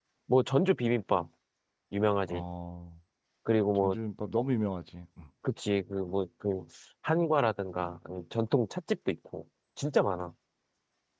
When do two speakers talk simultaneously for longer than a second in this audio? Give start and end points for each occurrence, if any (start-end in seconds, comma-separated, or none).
none